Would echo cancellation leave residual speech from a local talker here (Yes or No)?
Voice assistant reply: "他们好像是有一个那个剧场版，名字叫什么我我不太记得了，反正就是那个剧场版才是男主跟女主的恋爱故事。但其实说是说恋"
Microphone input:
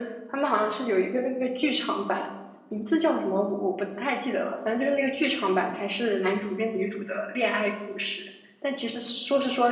No